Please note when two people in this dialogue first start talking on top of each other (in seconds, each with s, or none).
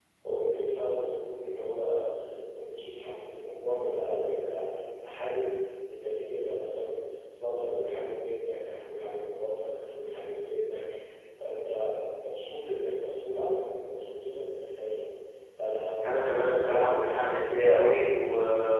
16.0 s